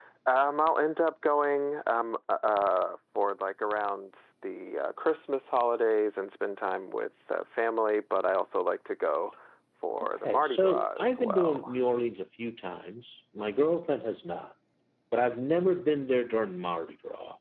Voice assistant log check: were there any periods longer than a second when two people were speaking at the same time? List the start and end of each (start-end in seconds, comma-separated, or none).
10.2-11.7